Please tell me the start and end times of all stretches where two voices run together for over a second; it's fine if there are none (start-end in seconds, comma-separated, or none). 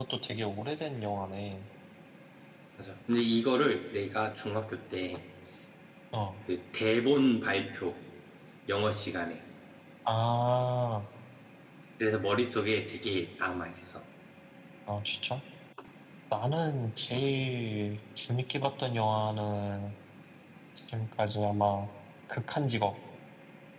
none